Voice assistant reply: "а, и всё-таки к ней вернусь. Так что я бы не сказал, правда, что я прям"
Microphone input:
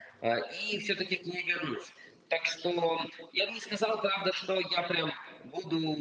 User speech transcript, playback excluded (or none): none